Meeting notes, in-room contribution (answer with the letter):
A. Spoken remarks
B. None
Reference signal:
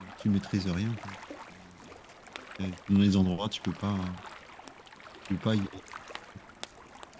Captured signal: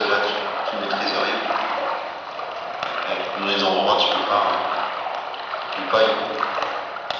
B